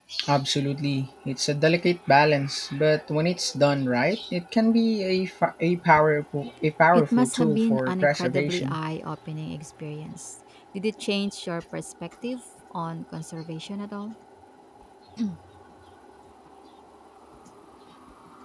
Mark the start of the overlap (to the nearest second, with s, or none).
7 s